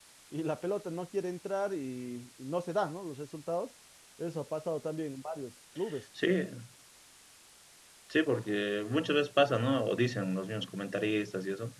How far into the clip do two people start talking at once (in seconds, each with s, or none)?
none